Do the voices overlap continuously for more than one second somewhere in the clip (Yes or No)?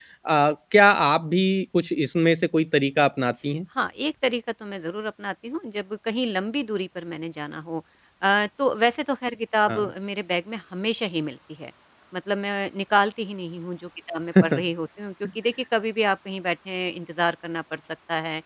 No